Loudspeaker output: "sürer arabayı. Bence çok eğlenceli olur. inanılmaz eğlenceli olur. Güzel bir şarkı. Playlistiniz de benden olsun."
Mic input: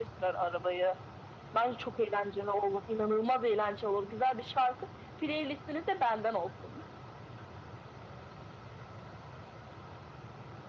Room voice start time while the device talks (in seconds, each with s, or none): none